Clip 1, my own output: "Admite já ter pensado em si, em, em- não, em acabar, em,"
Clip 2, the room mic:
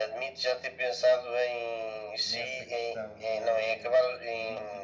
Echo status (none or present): present